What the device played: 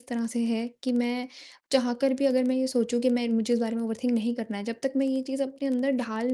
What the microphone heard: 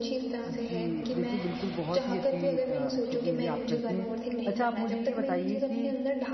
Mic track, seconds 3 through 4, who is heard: both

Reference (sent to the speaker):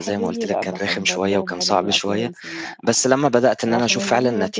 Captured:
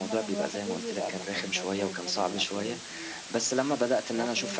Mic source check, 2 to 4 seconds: echo only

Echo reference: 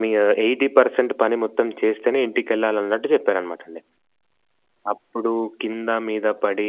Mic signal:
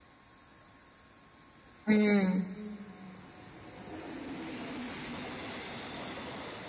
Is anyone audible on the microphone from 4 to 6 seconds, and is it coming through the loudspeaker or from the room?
neither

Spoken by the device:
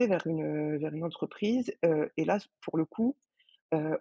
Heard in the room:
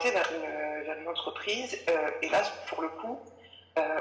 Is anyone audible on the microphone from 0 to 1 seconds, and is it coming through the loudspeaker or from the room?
echo only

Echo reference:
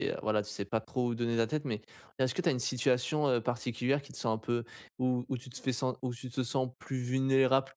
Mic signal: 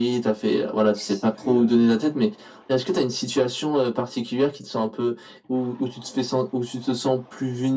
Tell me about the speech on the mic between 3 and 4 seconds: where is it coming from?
echo only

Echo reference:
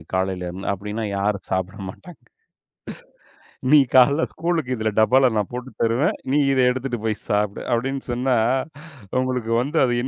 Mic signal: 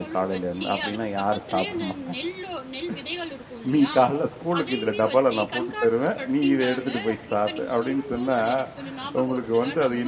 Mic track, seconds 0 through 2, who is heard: both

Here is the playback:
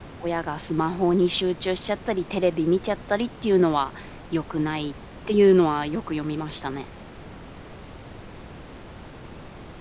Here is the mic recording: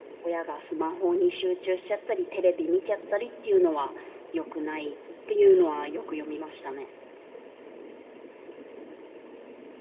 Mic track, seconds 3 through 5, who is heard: echo only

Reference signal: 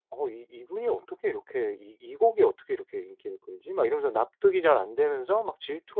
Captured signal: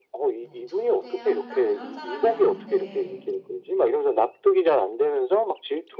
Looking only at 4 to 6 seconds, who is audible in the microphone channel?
echo only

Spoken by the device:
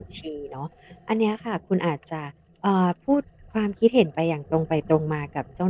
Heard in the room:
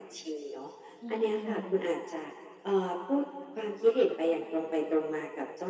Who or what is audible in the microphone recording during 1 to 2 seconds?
both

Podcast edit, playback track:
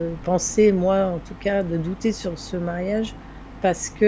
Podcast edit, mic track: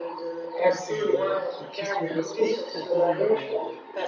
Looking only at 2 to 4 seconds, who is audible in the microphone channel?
both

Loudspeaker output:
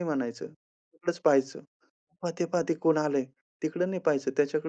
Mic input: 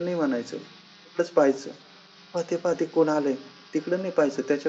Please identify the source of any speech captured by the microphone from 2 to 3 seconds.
echo only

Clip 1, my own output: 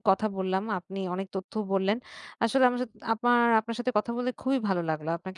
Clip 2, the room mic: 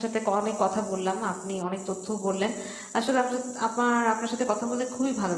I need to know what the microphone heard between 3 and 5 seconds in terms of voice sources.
echo only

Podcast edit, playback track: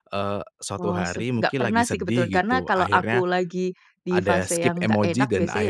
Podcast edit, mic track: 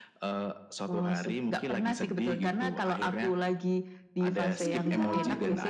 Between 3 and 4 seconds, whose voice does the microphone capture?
echo only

